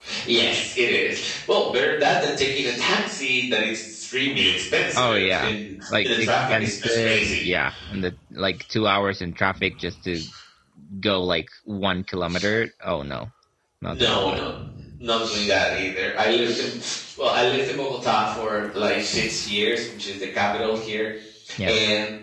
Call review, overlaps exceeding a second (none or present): present